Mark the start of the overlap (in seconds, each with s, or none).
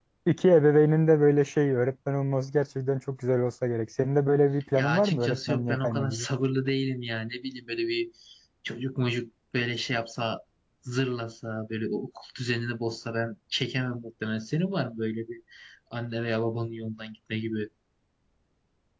4.8 s